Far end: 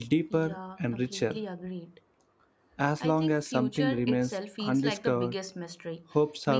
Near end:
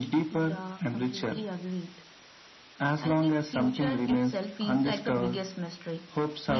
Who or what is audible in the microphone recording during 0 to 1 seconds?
echo only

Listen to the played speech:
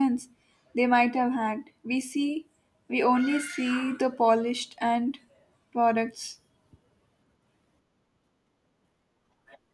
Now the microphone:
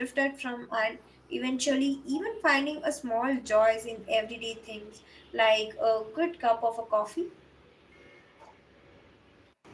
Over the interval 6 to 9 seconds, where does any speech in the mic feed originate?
user only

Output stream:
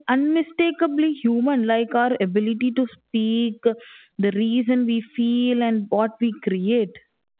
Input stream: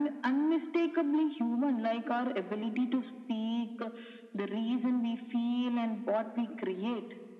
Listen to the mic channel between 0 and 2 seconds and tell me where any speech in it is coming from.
echo only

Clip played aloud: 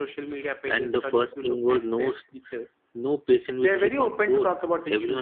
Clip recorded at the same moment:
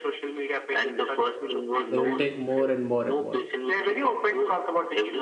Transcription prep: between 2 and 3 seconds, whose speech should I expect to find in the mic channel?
both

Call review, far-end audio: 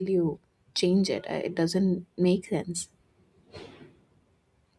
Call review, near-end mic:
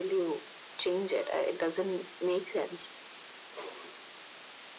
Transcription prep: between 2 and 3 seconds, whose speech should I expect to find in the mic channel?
echo only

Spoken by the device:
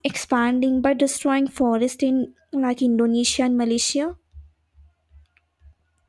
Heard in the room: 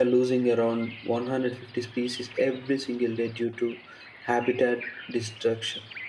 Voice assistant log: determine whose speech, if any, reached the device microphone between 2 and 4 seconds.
user only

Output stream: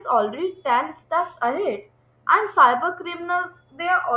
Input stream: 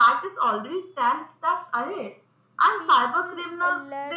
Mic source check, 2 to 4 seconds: both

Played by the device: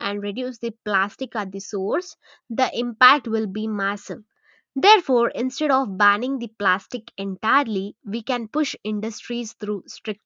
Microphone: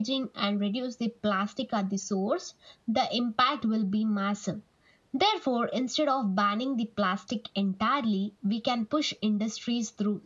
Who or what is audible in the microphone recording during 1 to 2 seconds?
echo only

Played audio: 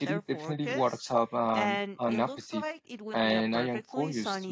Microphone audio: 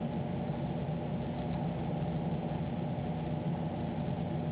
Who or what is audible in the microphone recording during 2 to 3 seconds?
neither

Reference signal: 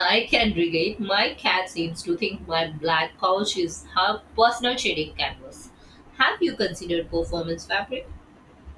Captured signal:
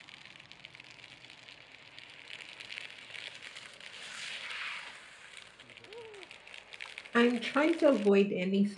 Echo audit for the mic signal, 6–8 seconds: user only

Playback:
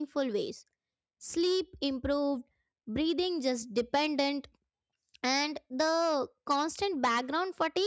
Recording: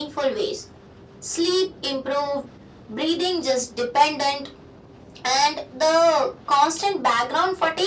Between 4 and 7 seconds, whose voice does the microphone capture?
echo only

